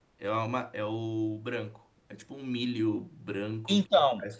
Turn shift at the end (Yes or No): Yes